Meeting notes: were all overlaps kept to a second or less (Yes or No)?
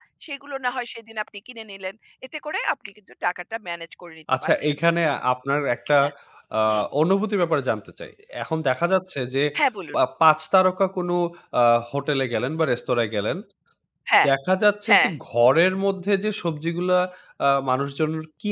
Yes